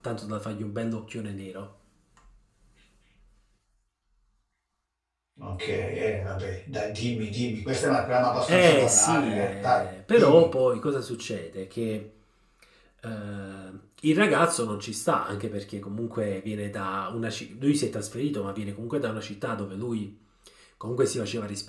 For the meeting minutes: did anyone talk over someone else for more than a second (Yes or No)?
Yes